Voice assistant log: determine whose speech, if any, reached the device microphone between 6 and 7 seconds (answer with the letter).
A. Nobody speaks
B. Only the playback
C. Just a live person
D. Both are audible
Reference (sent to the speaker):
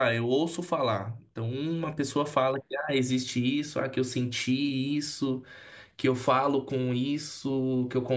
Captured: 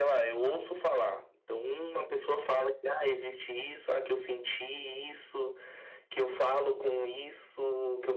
B